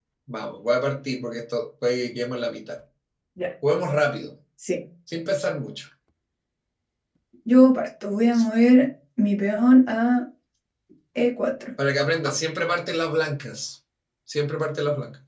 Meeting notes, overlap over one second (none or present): none